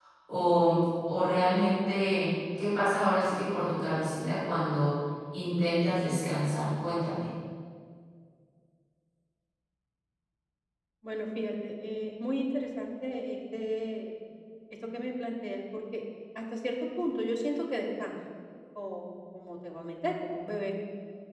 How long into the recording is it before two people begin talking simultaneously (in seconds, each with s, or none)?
none